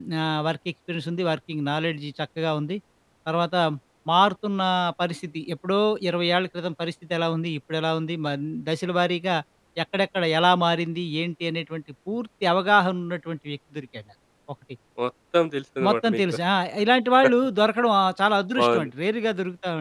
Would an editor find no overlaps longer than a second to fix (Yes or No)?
Yes